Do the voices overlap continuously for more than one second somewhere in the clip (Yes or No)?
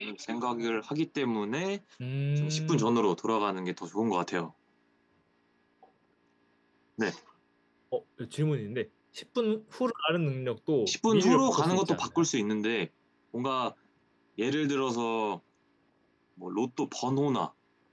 Yes